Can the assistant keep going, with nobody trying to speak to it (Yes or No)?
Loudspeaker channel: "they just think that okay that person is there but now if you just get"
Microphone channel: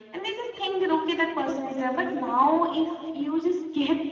Yes